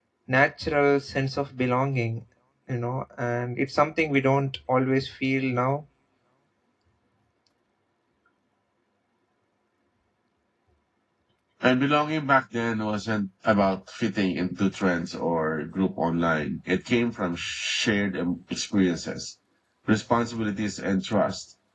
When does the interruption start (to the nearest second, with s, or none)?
none